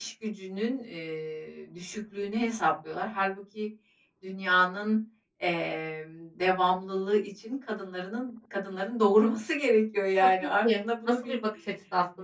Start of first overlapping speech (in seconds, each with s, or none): 10.2 s